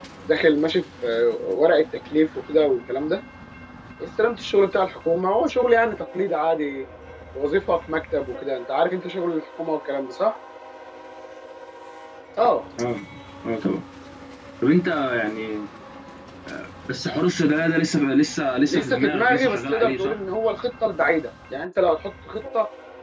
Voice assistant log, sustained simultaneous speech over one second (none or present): present